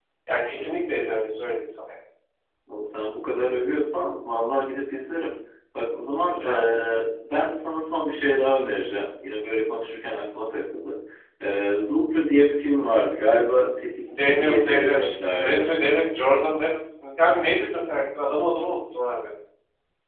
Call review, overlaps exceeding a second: present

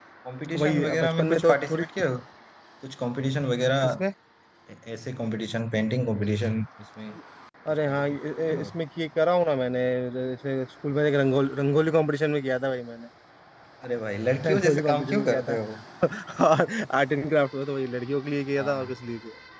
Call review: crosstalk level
present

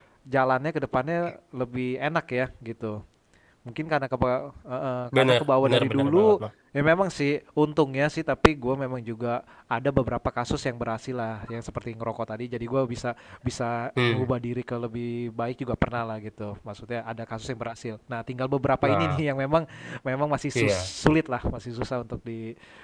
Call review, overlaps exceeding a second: present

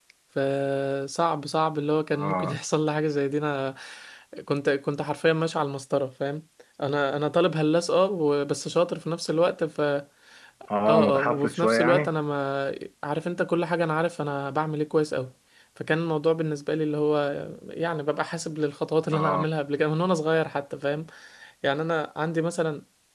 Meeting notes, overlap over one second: present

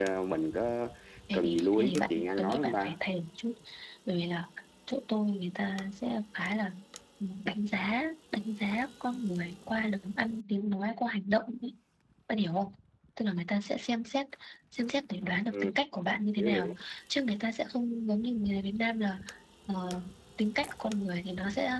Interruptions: present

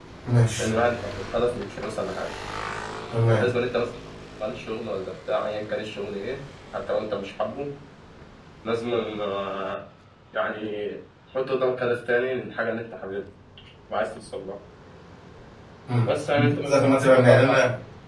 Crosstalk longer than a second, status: present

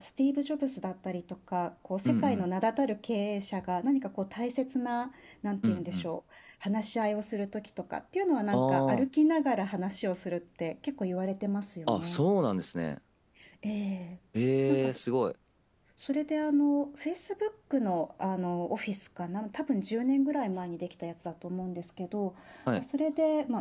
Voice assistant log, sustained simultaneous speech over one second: none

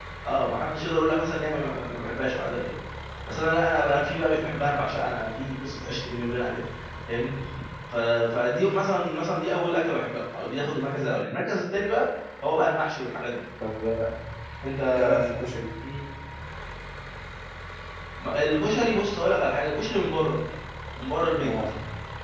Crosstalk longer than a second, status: none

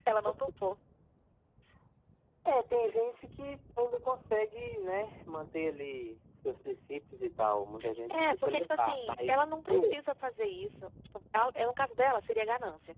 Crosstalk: present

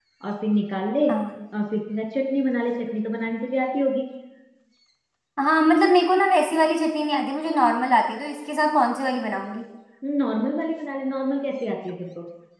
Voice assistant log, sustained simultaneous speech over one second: none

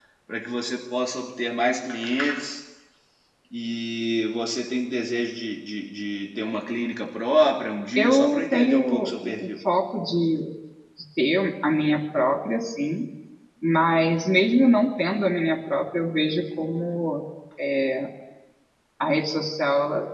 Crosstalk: present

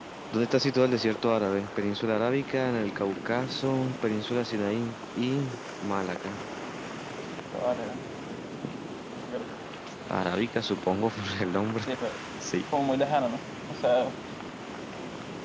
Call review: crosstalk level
none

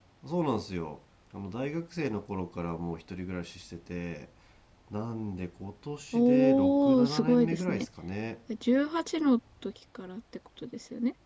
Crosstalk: present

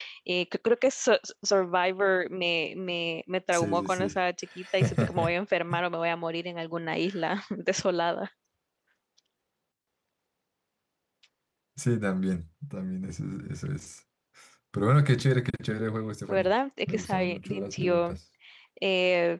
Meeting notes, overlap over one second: present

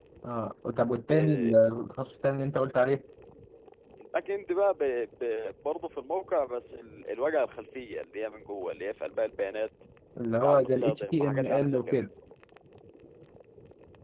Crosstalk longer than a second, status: present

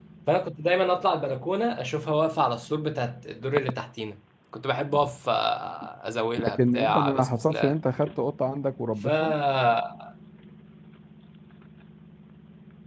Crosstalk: present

